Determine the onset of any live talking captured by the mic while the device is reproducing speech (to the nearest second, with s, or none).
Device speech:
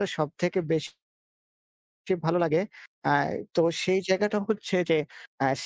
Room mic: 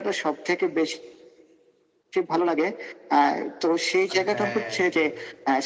4 s